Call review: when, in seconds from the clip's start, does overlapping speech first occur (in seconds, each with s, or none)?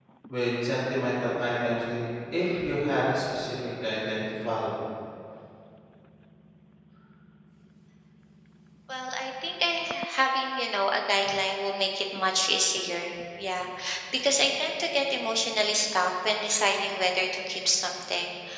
none